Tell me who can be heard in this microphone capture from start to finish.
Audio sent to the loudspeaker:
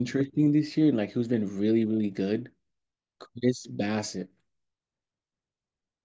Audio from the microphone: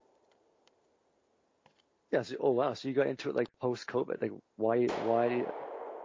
user only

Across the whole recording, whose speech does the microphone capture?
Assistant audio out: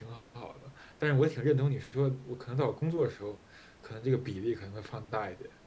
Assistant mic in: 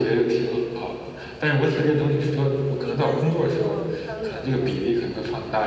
both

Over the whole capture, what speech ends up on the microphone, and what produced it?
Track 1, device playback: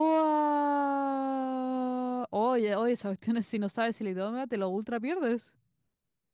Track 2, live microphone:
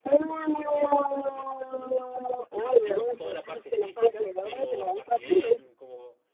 both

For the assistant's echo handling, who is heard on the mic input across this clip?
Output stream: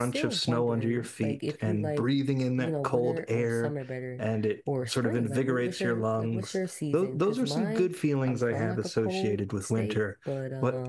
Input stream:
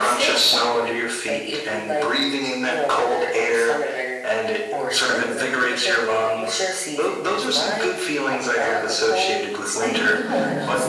both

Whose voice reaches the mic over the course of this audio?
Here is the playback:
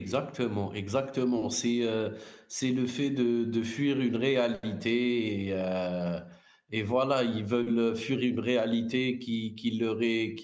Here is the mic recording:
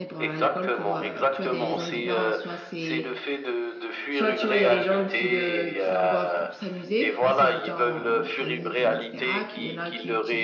both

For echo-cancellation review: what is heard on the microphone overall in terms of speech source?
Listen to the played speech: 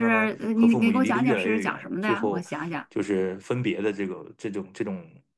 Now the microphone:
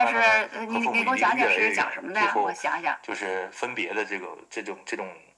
echo only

